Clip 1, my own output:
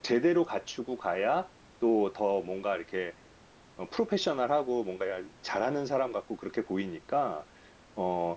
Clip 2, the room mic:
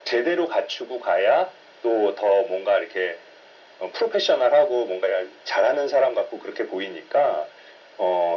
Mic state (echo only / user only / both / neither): echo only